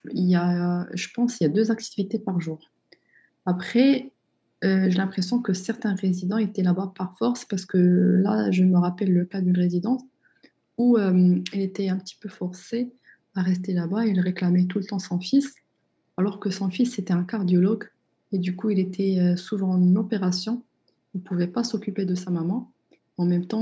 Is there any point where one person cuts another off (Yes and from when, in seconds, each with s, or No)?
No